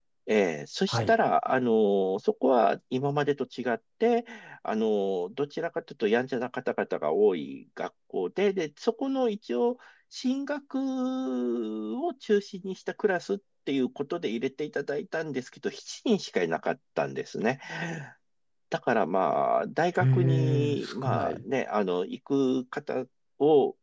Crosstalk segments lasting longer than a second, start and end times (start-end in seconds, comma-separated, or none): 20.0-21.4